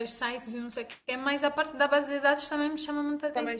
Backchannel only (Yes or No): No